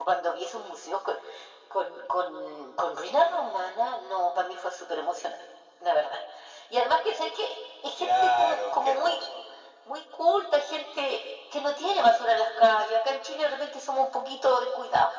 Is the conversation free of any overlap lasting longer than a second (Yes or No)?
No